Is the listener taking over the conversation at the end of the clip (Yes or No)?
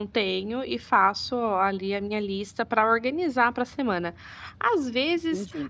No